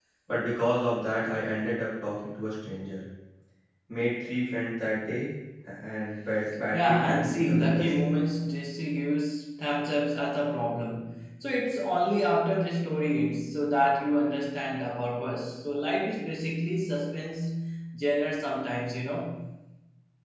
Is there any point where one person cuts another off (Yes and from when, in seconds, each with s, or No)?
Yes, from 6.7 s